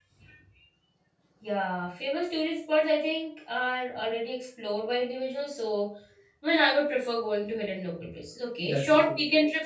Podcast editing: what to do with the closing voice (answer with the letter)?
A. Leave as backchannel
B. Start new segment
A